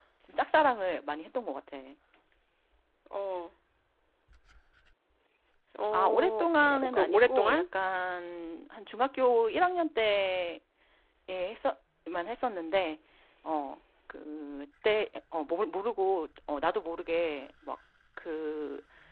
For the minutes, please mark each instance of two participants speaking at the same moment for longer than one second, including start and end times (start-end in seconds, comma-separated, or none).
5.9-7.6